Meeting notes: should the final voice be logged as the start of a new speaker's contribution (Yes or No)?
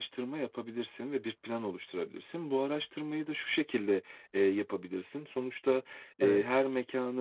No